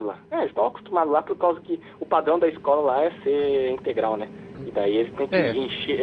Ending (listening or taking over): listening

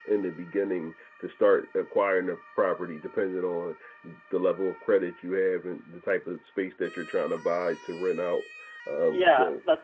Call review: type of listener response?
taking over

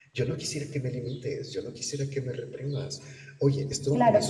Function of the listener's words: taking over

